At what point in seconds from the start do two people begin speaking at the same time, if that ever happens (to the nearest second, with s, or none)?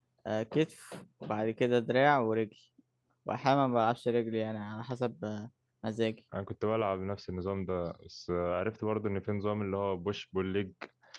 none